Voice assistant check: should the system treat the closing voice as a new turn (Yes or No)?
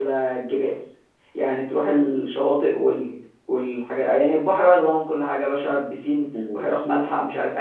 No